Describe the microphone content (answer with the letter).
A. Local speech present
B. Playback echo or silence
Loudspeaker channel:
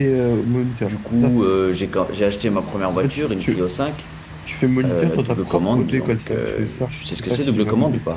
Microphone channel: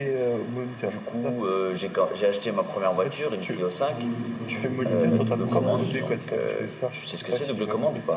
A